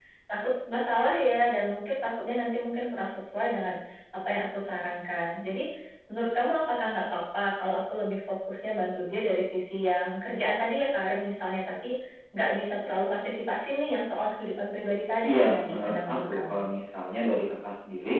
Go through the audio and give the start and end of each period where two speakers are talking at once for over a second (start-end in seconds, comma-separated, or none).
15.2-16.6